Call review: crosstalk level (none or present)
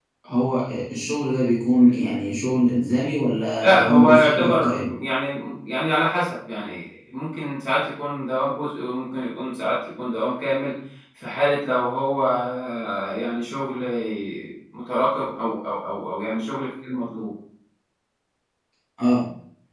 present